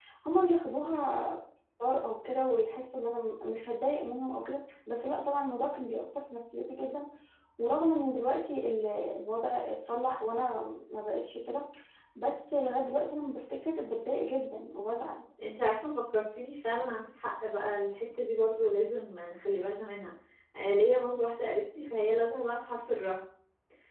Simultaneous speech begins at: none

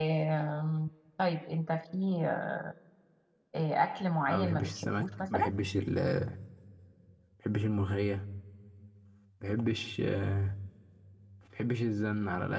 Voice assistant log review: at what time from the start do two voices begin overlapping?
4.3 s

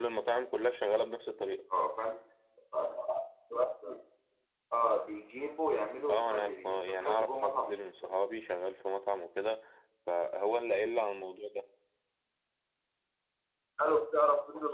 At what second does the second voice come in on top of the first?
6.1 s

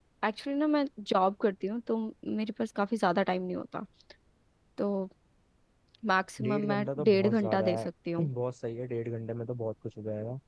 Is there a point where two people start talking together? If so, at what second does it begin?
6.4 s

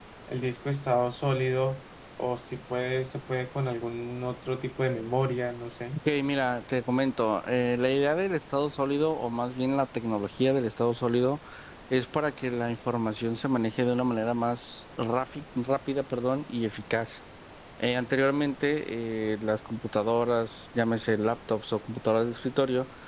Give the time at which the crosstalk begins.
none

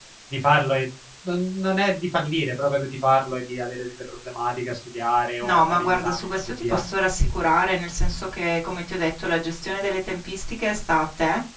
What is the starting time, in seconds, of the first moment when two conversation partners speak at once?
5.4 s

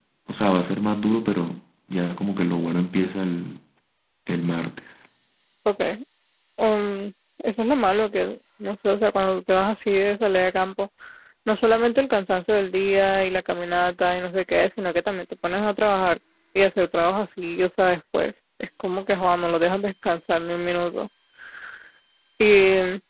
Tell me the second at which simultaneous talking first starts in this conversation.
none

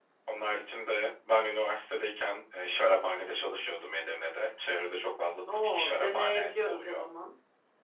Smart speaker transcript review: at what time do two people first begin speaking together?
5.5 s

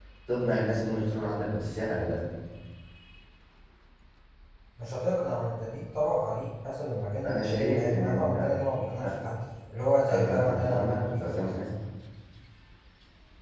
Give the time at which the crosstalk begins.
7.2 s

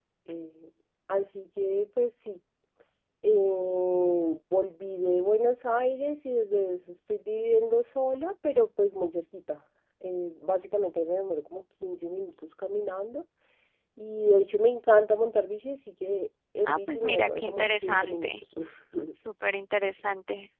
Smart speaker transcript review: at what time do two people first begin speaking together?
16.6 s

